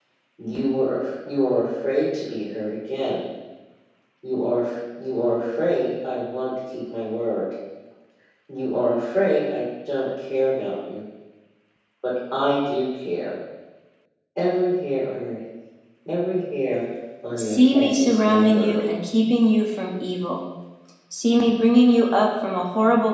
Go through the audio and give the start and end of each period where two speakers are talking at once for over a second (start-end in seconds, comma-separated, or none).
17.4-18.9